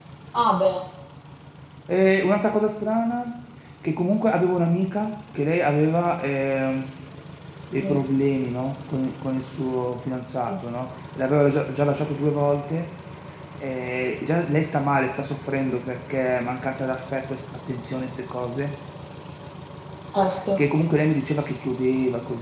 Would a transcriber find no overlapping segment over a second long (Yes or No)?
Yes